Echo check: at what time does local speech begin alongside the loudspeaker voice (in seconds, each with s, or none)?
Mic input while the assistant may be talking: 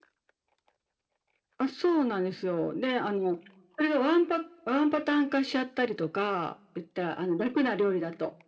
none